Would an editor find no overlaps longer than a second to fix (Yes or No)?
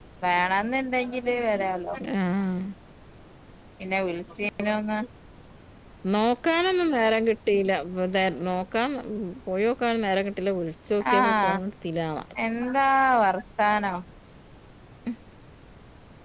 Yes